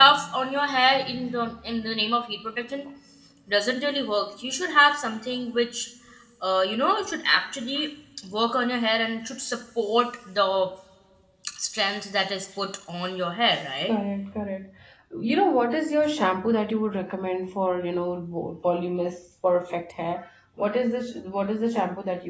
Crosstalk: none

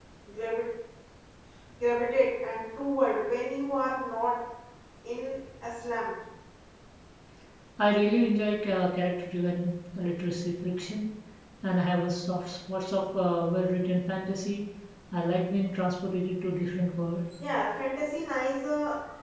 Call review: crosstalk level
none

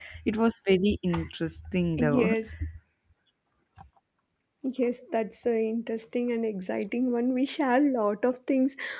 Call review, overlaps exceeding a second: none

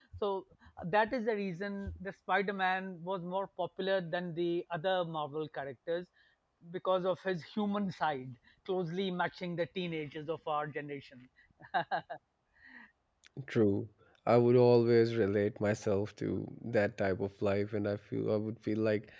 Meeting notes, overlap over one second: none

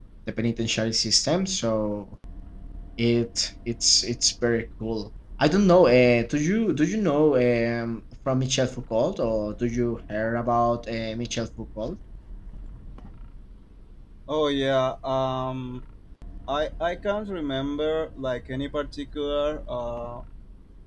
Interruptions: none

